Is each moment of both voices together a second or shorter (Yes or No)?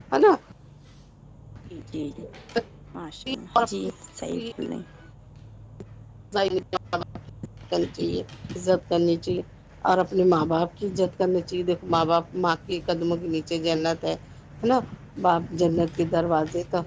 Yes